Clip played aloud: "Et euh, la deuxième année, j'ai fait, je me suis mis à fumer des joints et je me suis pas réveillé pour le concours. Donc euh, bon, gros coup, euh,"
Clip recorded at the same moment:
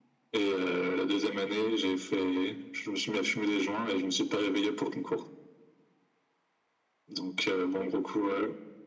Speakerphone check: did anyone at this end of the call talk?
No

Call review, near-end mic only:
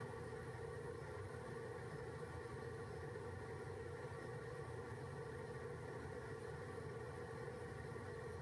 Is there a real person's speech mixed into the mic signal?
No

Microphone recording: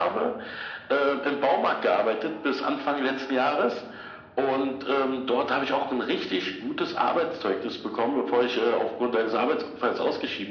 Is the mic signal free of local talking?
Yes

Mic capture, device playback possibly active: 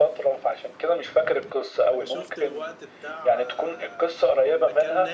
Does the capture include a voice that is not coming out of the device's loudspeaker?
Yes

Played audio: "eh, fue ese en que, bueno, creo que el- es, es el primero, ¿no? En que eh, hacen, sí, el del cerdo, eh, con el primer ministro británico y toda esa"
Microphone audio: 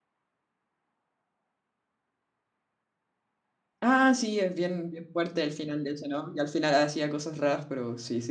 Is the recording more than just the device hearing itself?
Yes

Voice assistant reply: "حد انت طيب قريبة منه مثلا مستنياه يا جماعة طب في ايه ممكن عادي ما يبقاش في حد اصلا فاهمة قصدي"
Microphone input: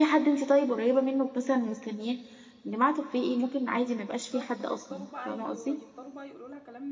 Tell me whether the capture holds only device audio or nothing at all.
No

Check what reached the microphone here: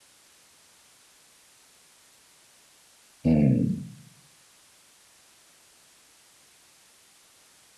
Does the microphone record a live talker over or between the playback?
Yes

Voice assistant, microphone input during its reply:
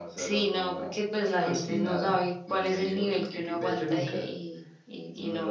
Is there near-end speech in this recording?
No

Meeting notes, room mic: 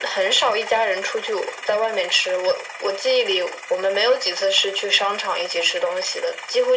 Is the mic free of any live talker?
Yes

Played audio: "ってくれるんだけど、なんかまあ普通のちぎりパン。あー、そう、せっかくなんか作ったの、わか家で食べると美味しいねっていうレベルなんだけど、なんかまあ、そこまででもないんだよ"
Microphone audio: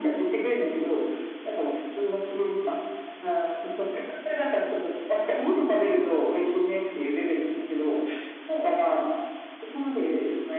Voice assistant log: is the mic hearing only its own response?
Yes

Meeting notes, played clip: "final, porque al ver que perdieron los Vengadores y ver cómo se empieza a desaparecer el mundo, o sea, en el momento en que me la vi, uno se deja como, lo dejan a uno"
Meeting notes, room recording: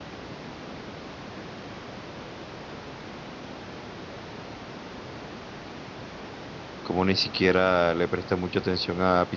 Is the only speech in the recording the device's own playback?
No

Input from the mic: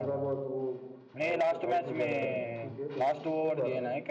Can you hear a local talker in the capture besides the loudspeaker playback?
Yes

